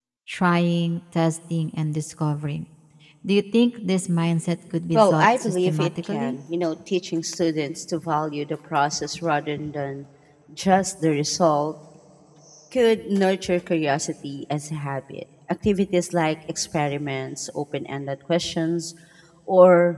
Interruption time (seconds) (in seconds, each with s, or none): 4.9 s